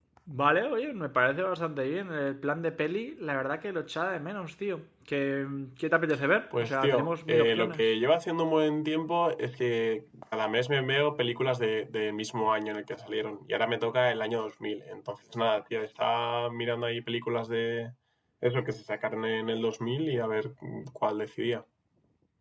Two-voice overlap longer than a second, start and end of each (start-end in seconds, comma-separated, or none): 6.6-7.9